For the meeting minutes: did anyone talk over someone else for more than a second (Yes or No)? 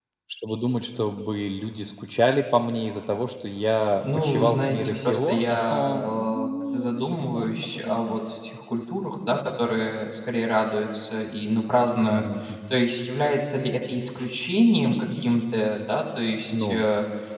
Yes